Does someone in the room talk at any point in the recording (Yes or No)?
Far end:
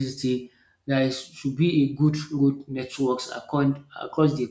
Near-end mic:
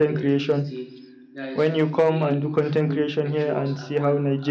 Yes